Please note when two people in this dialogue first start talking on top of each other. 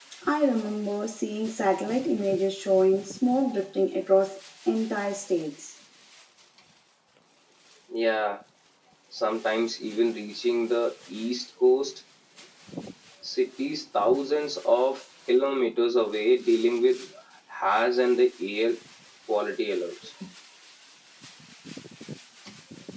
none

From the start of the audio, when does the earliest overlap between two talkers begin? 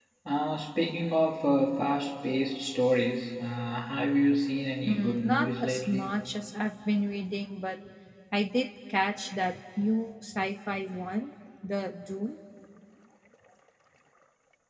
5 s

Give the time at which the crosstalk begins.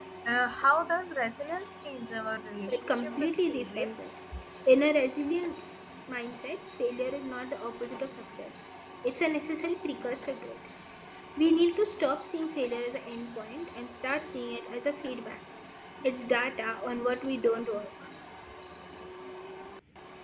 3 s

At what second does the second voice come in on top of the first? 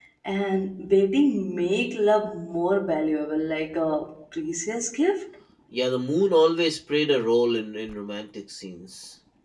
none

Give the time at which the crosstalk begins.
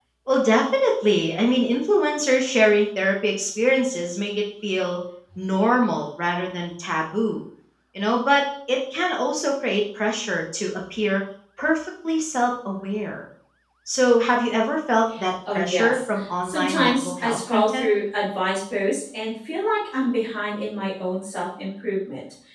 15 s

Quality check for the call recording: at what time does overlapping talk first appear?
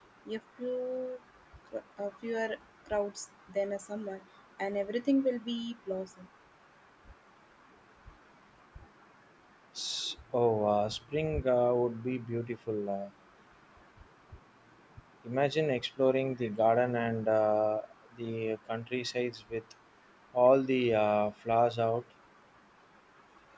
none

